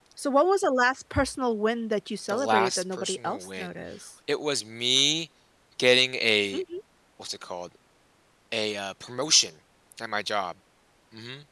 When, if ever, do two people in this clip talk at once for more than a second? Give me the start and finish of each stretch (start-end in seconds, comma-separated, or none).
2.3-3.7